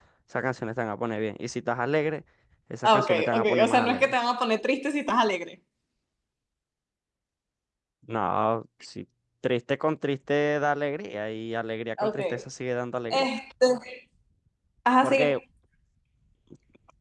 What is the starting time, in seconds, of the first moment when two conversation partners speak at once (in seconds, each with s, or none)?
2.8 s